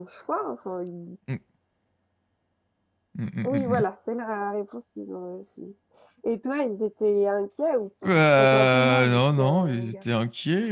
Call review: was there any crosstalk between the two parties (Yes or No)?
Yes